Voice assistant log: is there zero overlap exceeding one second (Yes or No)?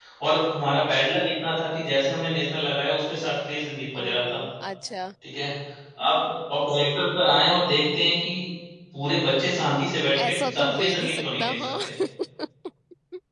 No